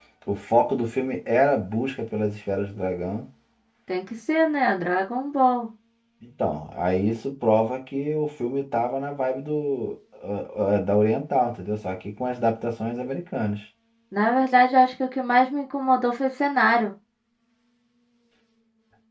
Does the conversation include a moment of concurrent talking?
No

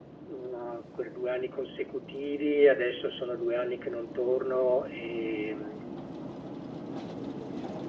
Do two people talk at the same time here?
No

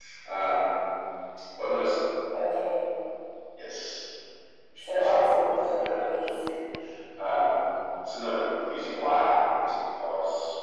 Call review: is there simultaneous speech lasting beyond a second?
Yes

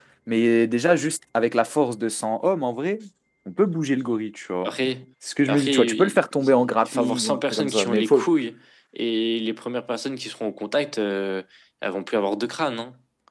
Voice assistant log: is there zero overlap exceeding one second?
No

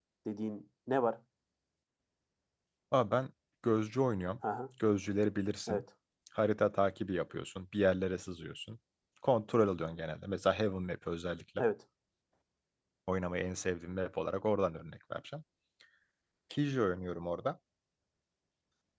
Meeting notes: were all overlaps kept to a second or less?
Yes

